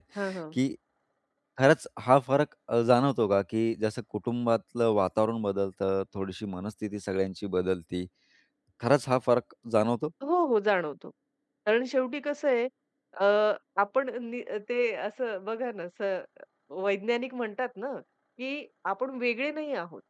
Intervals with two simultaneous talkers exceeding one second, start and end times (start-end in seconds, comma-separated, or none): none